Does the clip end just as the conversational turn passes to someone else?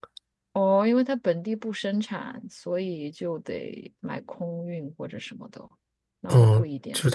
Yes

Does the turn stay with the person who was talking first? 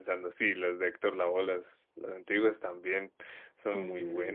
No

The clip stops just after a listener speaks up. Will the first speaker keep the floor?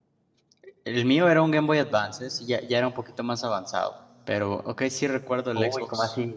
No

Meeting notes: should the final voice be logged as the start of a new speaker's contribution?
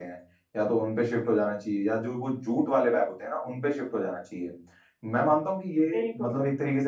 No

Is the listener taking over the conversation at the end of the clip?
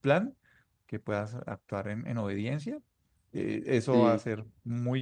No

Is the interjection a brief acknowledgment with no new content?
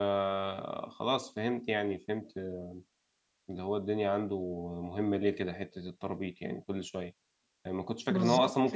Yes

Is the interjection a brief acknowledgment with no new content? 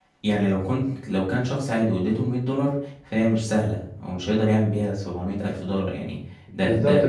No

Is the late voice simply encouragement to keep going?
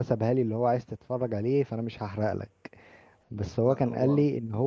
Yes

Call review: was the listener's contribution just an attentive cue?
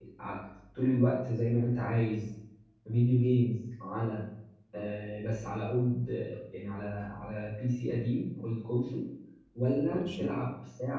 Yes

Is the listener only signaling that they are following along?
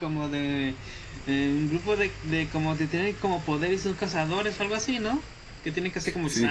No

